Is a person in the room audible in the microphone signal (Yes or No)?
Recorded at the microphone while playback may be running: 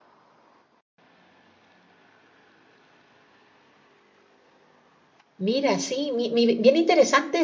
Yes